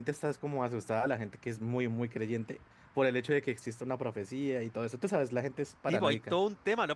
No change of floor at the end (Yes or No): No